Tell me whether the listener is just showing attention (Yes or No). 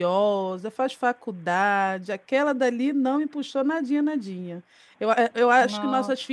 Yes